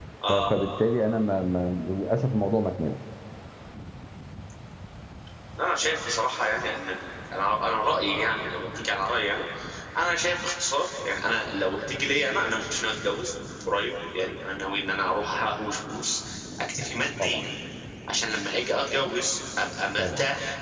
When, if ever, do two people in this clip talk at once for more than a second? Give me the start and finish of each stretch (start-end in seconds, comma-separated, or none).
none